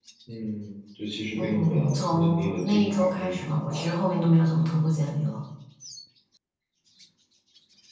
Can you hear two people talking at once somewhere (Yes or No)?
Yes